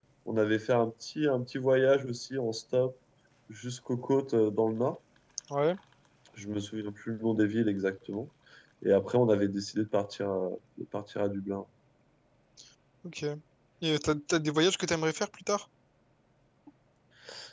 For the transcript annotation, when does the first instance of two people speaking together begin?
none

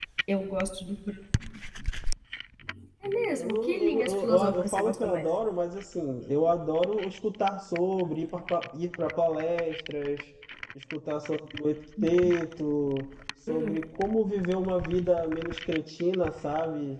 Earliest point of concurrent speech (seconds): 3.4 s

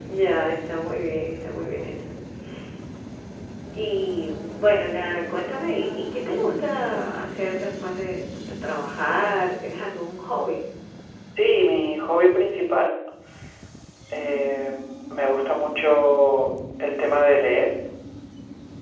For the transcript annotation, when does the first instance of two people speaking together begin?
none

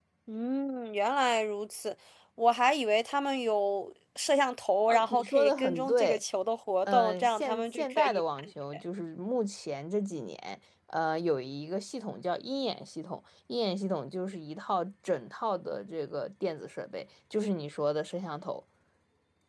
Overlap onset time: 4.9 s

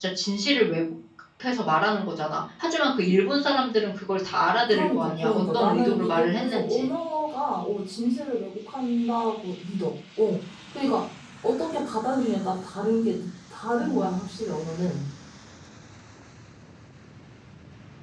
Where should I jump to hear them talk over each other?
4.7 s

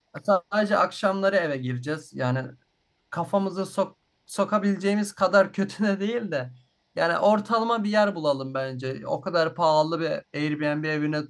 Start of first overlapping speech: none

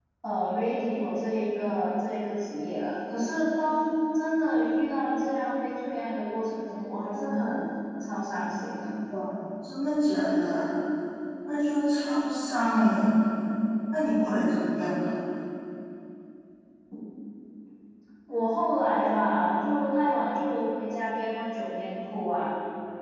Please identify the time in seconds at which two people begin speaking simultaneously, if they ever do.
none

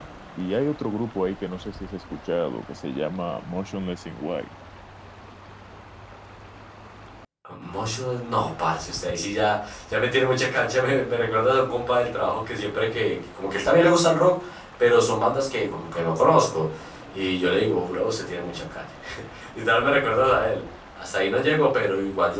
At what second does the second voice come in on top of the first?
none

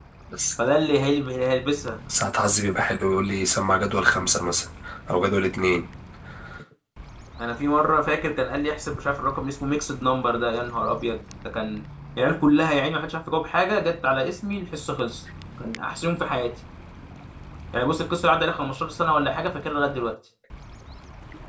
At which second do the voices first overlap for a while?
none

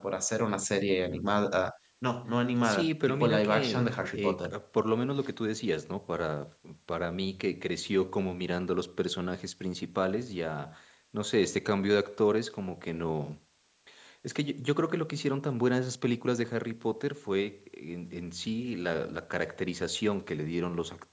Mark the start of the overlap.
2.6 s

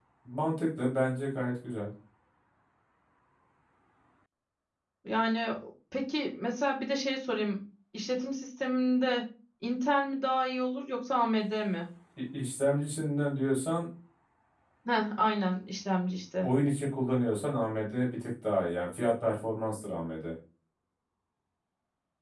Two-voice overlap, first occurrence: none

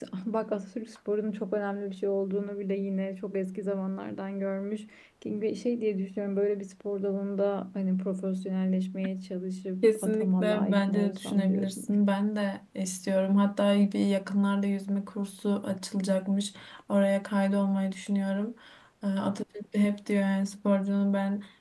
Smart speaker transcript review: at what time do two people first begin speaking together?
9.8 s

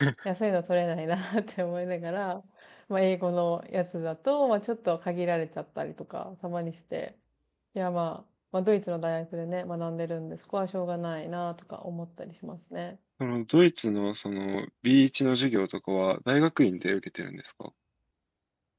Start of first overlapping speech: none

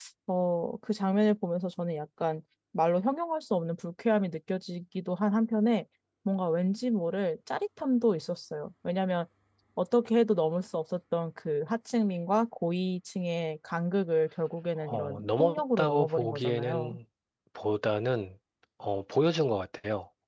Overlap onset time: 14.8 s

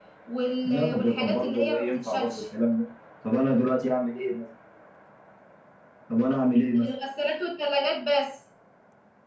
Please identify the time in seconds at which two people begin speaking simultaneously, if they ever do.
0.6 s

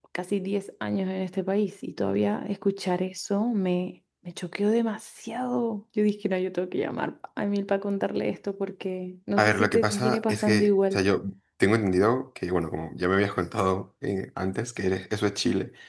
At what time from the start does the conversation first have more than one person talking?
9.4 s

